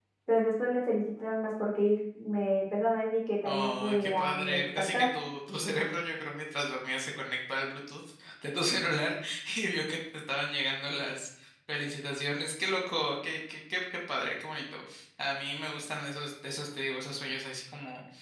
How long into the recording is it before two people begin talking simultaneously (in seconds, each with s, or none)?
3.5 s